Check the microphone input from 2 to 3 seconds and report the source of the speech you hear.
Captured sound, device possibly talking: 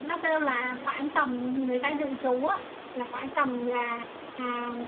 echo only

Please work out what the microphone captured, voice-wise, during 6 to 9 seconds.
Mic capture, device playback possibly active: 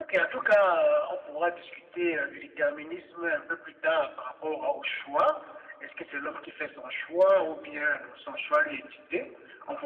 echo only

